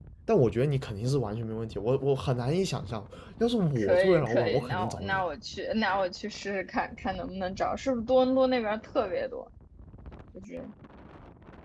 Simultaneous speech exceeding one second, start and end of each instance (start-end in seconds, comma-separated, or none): 3.8-5.2